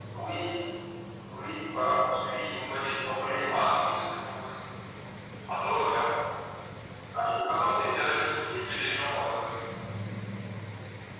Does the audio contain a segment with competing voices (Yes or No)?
Yes